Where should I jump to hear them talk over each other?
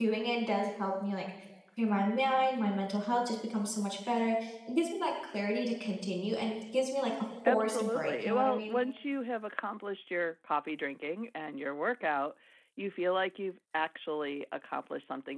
7.4 s

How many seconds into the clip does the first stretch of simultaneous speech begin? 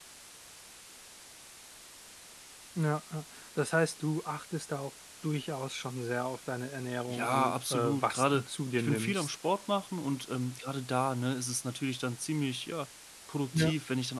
7.1 s

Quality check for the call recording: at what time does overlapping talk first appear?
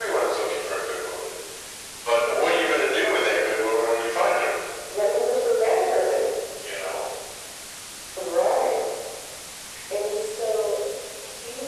none

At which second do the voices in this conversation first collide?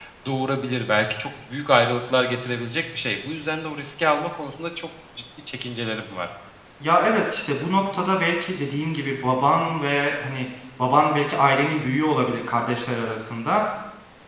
none

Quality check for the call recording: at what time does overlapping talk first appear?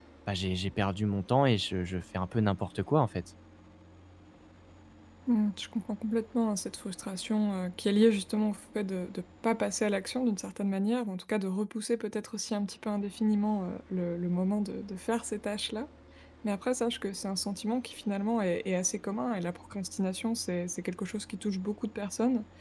none

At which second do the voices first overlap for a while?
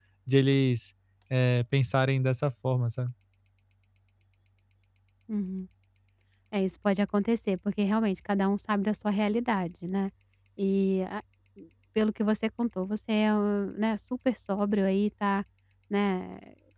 none

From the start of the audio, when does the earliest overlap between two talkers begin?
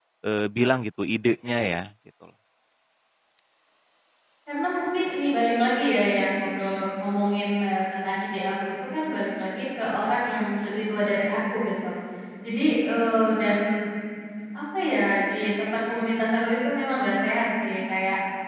none

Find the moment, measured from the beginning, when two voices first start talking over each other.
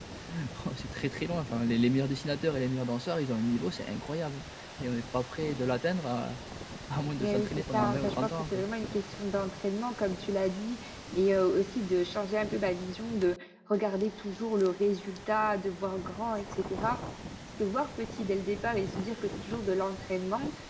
7.2 s

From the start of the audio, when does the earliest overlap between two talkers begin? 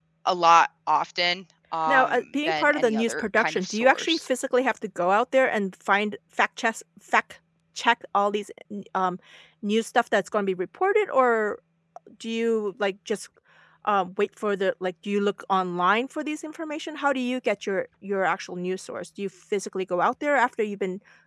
1.9 s

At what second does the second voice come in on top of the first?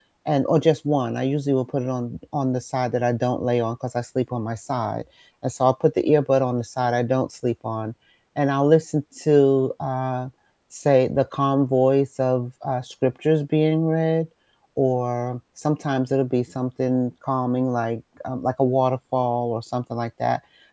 none

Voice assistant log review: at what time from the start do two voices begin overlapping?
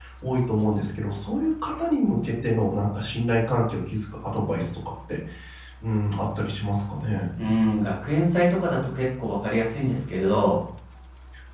none

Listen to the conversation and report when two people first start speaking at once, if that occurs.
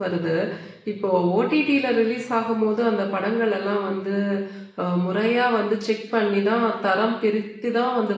none

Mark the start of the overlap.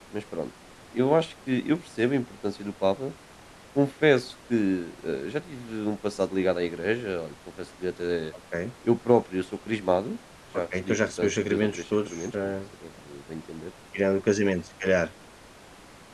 10.5 s

